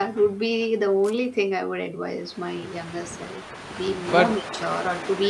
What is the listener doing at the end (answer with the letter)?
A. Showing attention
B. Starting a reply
A